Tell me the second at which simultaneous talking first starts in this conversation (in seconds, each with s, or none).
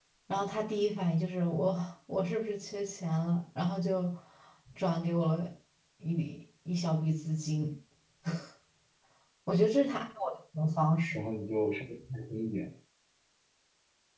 none